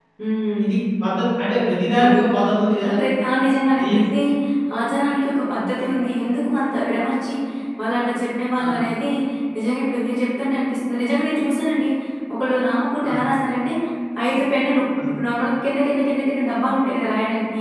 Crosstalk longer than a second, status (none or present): none